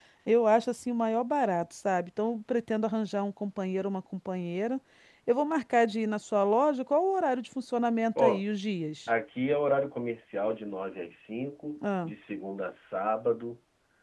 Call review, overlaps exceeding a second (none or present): none